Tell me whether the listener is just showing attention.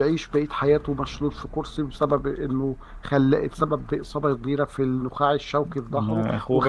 No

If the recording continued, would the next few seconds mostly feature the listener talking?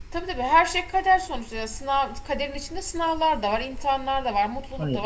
No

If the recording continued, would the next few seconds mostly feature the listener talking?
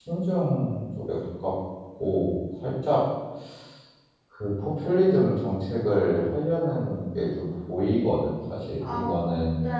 Yes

